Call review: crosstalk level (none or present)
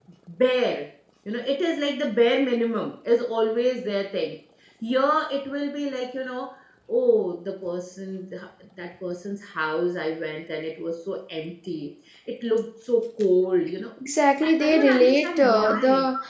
present